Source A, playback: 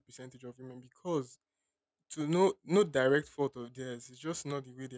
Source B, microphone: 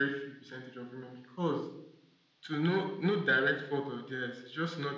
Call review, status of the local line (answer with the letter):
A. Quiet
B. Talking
A